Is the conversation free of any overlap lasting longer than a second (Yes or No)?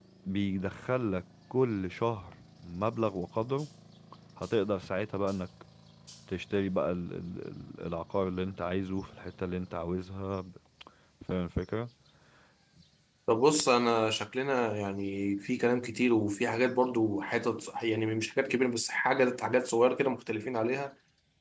Yes